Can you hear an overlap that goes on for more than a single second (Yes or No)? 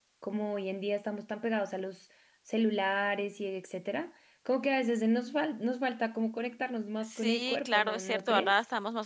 Yes